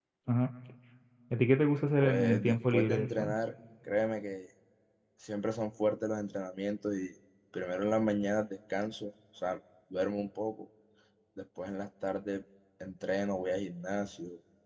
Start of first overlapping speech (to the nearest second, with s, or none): 2 s